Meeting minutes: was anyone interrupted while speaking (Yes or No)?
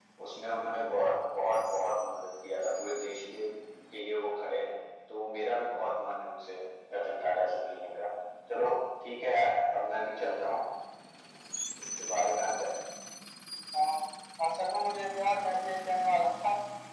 No